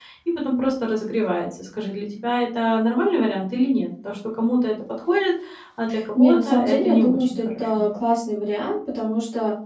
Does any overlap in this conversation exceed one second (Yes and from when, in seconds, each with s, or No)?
Yes, from 6.2 s